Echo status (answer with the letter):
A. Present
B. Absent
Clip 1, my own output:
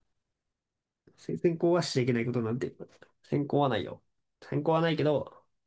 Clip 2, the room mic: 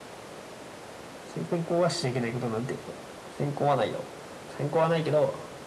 A